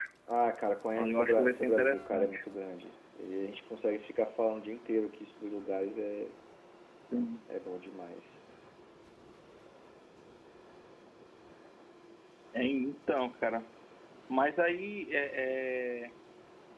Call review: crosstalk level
present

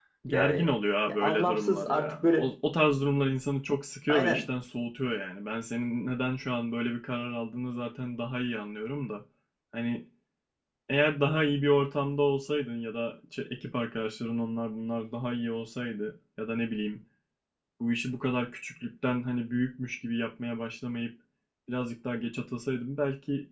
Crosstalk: present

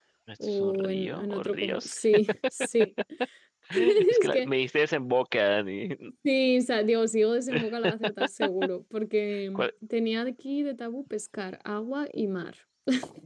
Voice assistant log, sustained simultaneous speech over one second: present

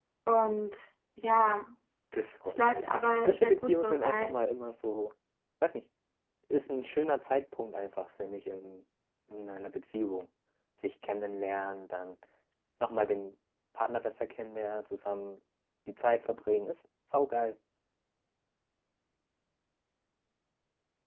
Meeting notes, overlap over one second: present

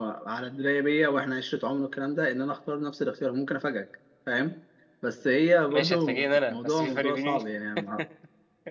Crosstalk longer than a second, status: present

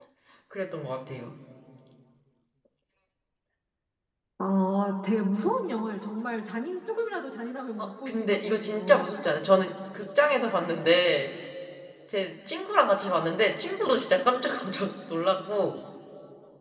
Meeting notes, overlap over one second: present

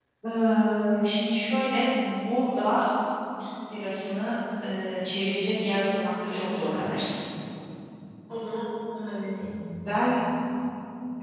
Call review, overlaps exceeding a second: none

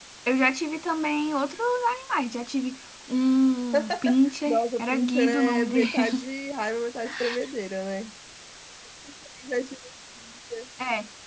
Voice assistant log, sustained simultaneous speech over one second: present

